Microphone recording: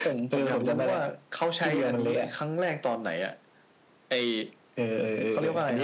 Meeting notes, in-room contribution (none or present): none